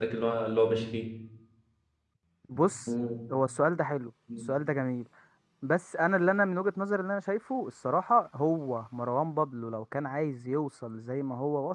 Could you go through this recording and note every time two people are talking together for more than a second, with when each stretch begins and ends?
none

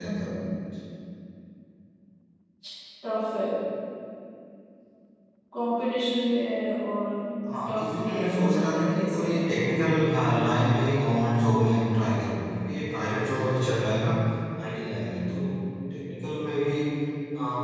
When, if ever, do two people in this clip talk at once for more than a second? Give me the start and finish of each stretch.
7.7-9.3

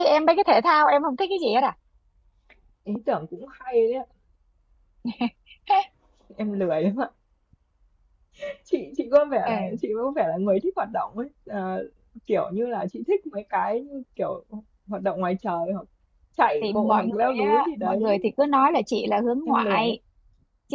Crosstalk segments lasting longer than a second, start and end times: 16.6-18.1

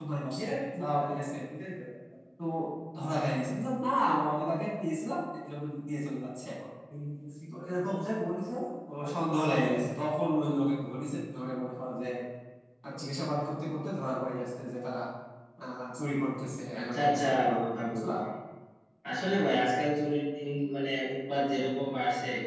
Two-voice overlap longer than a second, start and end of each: 16.8-18.1

